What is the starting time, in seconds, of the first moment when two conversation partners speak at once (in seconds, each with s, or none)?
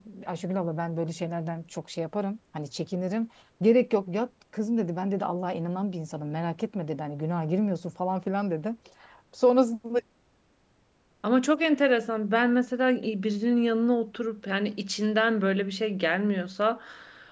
none